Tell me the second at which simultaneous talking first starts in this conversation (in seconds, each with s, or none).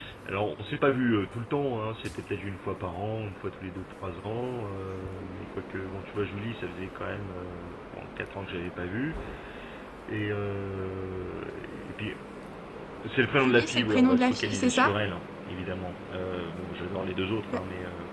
13.4 s